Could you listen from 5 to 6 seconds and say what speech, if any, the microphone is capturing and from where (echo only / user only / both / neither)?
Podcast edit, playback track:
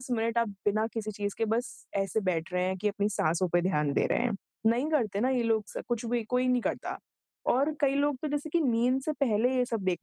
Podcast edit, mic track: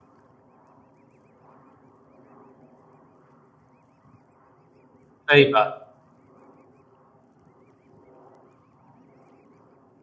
user only